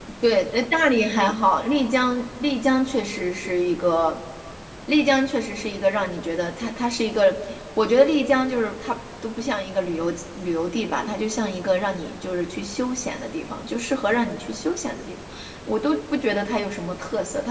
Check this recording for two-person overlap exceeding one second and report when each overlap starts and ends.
none

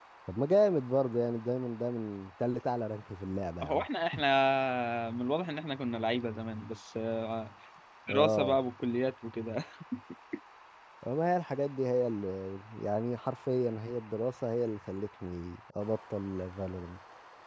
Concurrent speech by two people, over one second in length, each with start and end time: none

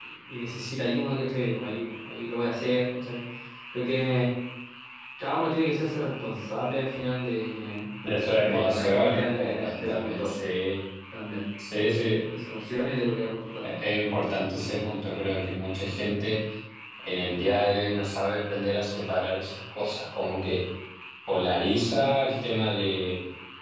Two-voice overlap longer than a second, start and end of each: 8.3-10.3

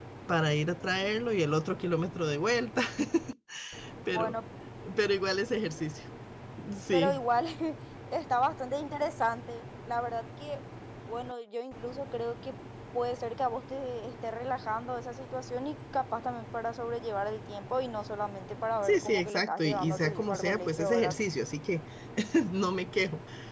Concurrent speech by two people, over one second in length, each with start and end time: 18.8-21.1

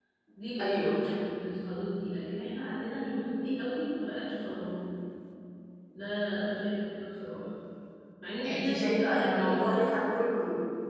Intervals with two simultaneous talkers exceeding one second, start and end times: 8.4-10.0

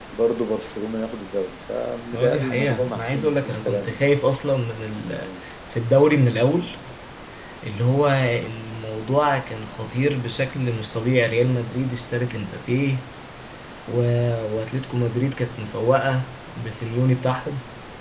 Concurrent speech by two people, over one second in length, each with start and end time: 2.1-4.0

